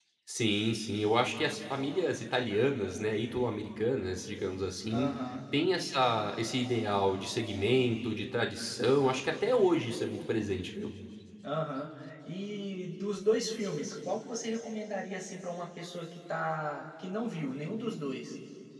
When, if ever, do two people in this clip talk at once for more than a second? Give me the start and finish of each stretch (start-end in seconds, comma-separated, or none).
none